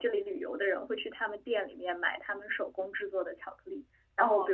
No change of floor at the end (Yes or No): Yes